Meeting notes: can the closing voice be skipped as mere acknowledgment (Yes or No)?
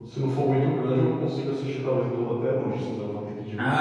No